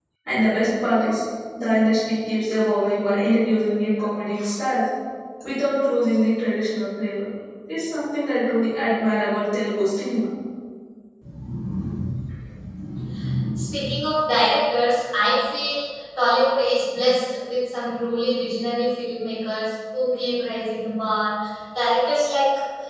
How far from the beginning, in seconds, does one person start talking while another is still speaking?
none

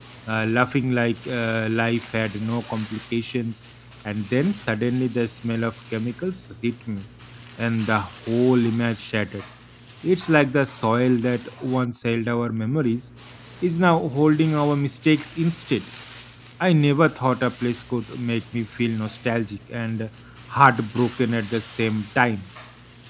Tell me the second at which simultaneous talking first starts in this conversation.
none

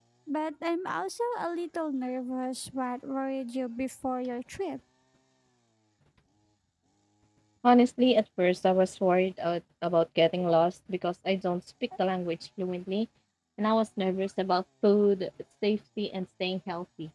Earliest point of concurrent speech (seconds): none

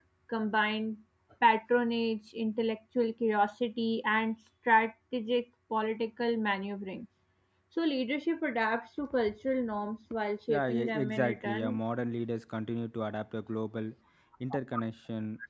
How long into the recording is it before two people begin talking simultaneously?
10.5 s

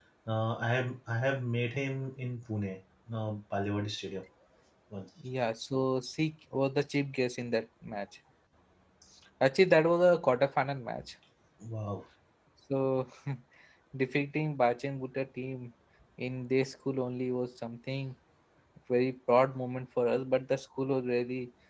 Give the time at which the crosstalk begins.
none

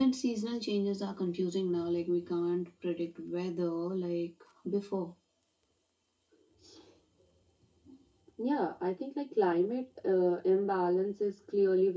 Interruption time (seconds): none

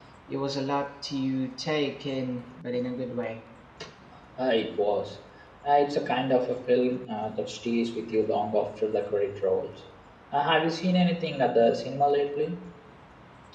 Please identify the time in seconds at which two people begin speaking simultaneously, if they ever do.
none

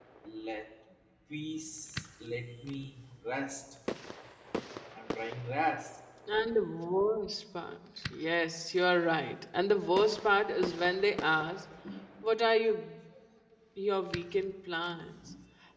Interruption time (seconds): none

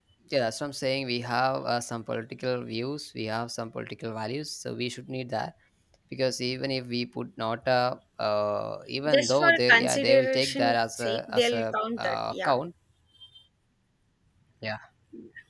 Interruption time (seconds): 9.1 s

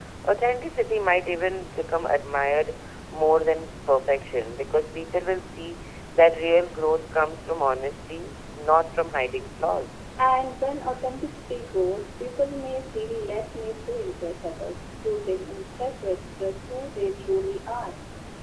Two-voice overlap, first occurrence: none

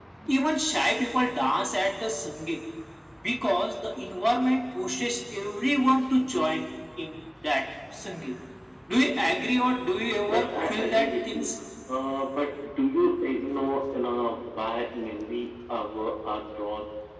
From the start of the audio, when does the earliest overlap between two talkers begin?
10.3 s

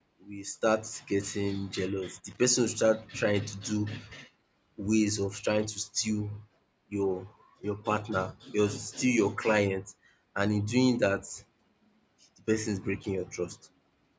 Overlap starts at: none

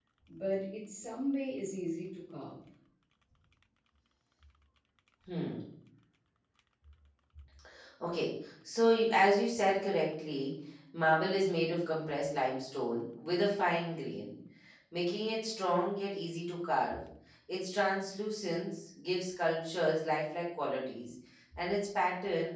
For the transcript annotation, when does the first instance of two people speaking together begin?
none

